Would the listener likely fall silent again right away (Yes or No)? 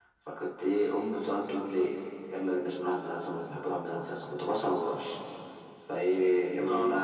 Yes